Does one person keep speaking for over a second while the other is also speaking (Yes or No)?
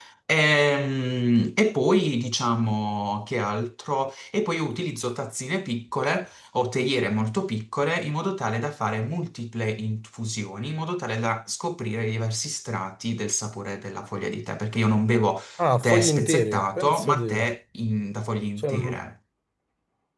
Yes